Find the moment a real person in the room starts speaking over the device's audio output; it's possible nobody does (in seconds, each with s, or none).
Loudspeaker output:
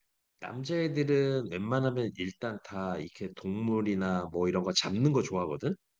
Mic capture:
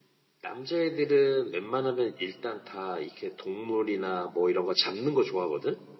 none